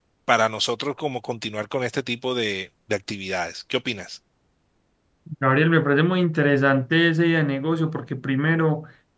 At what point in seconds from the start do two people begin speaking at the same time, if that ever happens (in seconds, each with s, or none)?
none